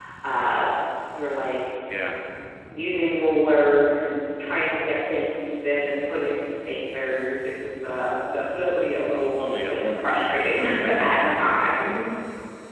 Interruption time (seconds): 9.4 s

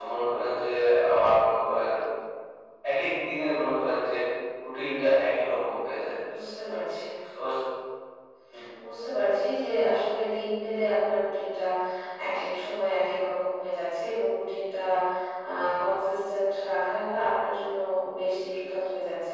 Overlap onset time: none

